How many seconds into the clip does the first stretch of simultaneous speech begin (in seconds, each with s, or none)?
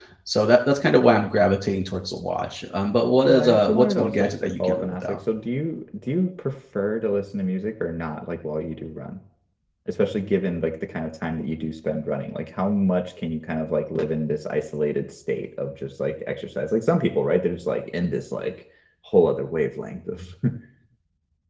3.3 s